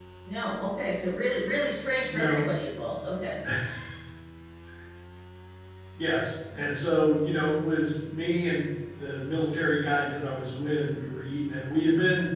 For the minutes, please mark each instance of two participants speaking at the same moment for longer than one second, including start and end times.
none

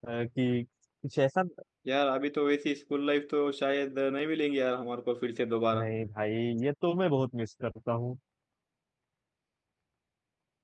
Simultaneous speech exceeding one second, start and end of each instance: none

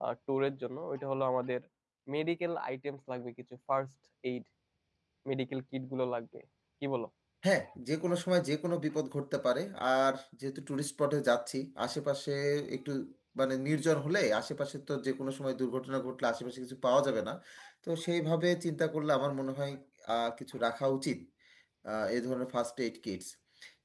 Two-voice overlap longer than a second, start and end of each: none

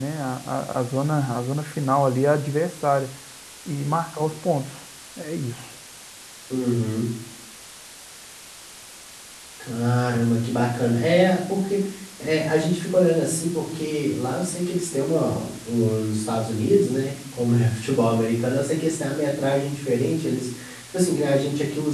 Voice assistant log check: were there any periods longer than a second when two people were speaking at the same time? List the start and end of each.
none

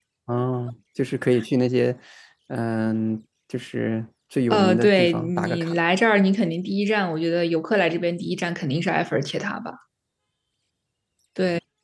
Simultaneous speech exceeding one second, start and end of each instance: 4.5-5.8

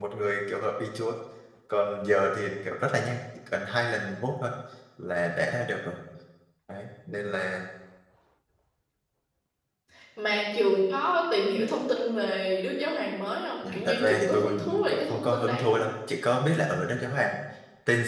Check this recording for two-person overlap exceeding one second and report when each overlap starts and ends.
13.7-15.8

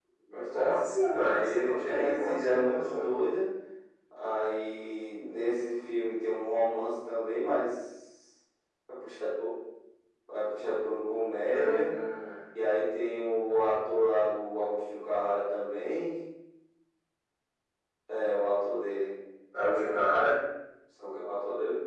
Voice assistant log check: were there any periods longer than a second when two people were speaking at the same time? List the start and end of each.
0.5-3.0

